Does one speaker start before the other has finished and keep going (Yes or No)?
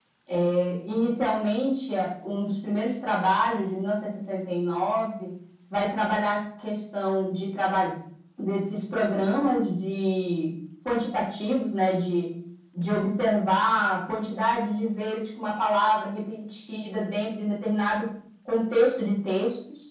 No